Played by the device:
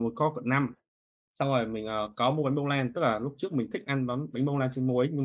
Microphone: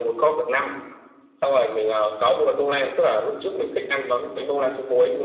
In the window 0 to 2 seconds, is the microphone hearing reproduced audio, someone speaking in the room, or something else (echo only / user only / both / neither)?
echo only